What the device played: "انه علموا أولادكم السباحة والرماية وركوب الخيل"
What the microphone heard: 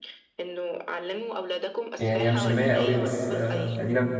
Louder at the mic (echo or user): user